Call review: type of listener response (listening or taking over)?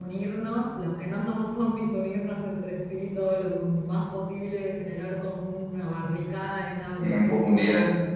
listening